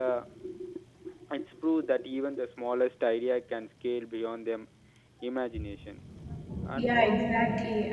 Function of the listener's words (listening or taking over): taking over